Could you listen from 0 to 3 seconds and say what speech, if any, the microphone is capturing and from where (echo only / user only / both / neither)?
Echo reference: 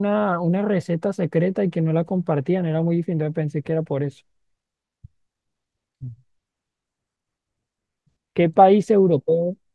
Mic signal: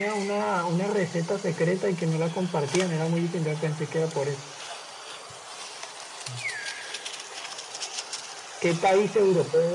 echo only